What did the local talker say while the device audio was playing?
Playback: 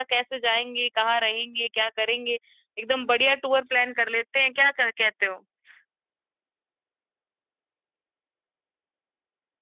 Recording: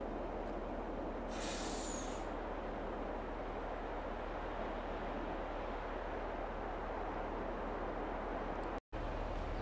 none

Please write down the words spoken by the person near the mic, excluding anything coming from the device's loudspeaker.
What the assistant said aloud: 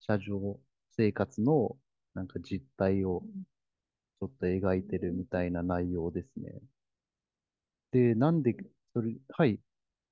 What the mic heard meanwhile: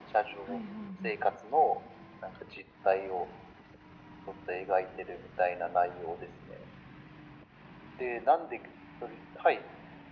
はいはいはい。

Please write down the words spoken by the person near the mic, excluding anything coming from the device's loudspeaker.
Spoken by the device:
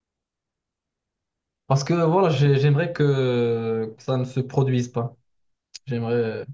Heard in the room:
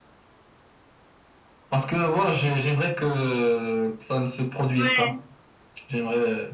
ouais,

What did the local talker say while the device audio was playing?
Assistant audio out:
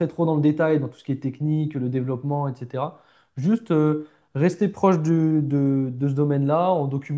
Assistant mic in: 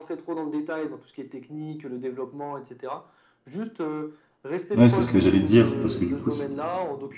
Ouais, c'est ce que j'allais te dire, parce que du coup, c'est

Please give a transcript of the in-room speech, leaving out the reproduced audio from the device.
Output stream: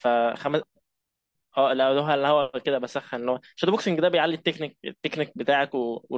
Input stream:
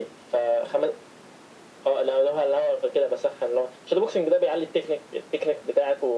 none

